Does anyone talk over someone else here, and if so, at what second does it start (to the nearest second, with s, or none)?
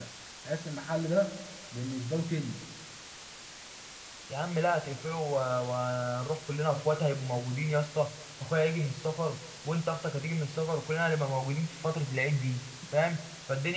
none